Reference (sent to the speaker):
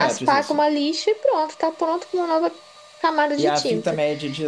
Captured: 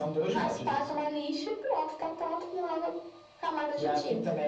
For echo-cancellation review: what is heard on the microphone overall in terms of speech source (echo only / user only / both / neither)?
echo only